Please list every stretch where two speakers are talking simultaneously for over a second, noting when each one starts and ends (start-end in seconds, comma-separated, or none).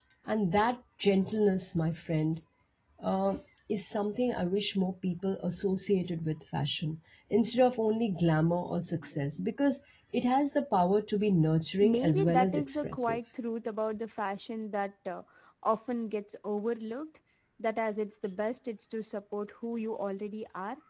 11.8-13.2